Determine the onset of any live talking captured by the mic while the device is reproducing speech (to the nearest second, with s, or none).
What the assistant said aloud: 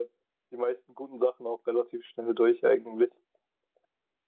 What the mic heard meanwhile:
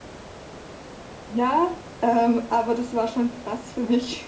1 s